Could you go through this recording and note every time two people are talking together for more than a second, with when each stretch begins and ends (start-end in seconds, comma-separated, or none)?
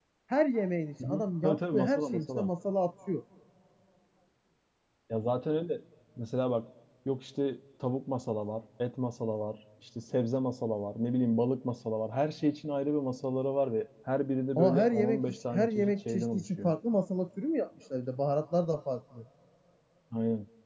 1.0-2.5, 14.6-16.7